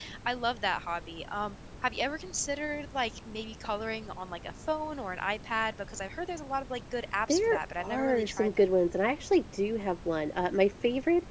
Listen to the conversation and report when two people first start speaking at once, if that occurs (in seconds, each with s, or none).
7.3 s